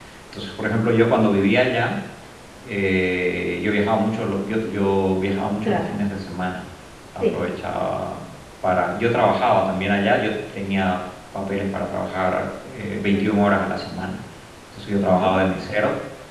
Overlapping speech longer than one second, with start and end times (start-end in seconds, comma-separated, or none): none